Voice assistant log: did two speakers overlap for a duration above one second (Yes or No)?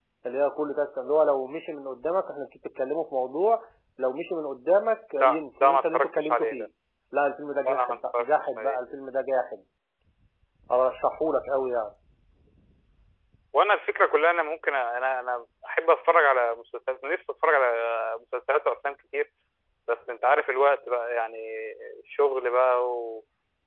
Yes